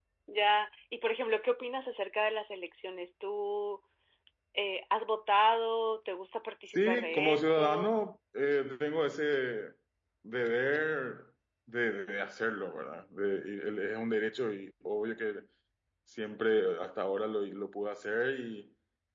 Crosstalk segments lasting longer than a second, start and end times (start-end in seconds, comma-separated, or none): 6.7-8.0